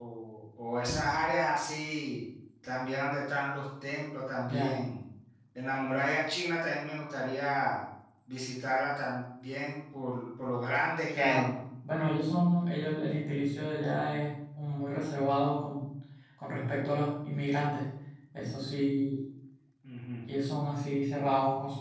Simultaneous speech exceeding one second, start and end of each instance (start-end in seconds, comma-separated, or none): none